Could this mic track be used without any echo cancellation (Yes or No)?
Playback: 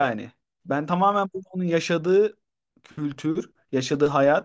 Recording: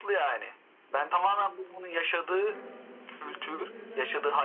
No